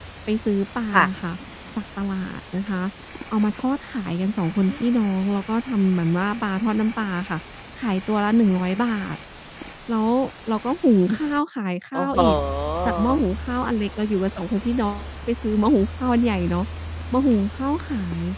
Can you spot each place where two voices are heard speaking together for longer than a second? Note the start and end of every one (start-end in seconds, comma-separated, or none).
none